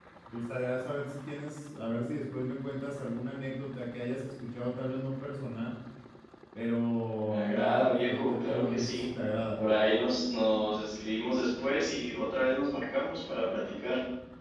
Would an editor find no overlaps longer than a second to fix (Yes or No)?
No